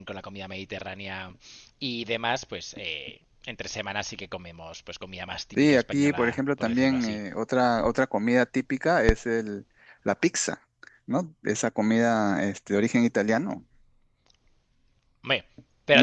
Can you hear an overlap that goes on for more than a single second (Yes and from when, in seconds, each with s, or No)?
Yes, from 5.6 s